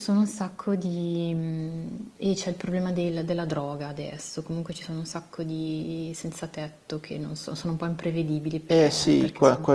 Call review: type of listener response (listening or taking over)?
taking over